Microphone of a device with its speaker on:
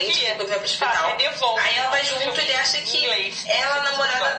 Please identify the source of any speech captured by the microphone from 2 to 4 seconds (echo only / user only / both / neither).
echo only